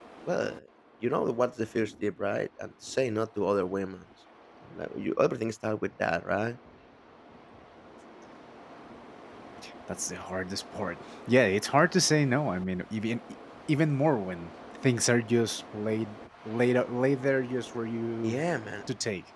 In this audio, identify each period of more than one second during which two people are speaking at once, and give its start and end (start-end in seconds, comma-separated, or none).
none